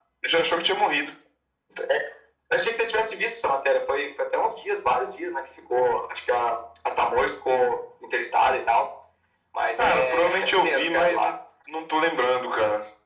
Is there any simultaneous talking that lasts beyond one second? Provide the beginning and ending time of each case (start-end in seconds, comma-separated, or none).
9.8-11.3